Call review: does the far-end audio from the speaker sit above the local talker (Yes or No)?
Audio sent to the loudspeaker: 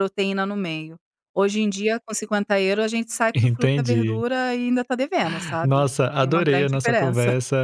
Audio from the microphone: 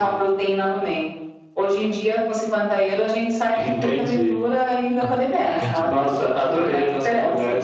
Yes